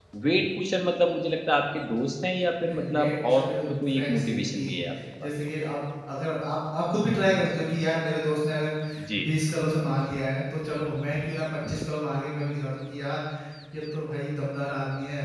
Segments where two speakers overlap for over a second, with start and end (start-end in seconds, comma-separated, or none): 2.6-4.8